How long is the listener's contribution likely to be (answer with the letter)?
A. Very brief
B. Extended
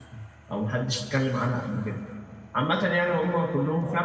A